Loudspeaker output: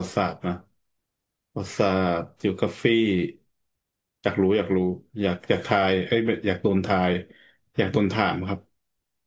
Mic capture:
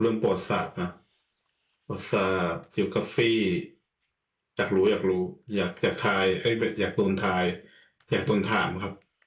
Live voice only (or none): none